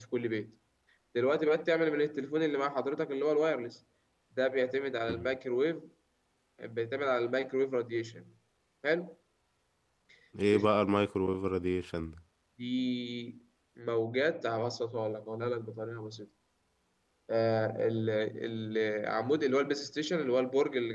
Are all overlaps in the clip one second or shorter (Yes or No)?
Yes